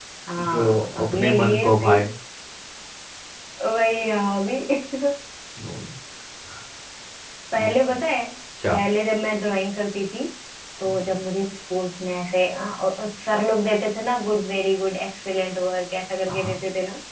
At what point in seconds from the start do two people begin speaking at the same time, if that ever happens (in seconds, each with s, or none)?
0.5 s